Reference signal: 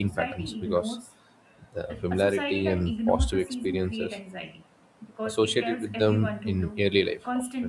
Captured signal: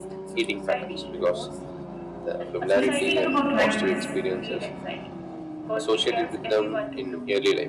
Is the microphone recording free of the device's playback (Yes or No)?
No